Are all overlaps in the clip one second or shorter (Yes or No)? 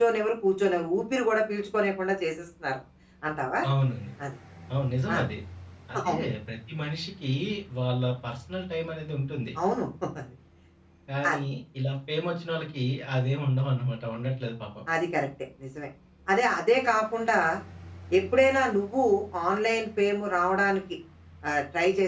Yes